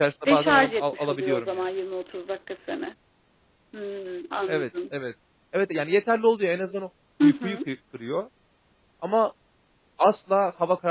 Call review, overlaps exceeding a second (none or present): present